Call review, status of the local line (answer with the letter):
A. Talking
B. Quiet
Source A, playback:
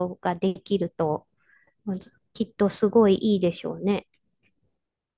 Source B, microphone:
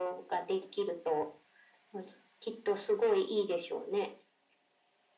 B